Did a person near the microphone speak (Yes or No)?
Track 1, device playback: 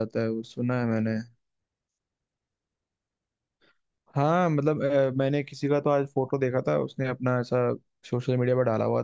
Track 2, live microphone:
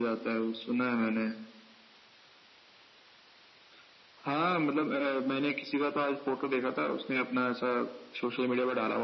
No